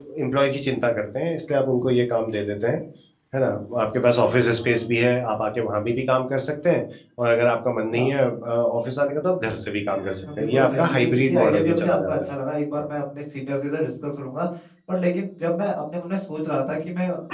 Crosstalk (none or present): present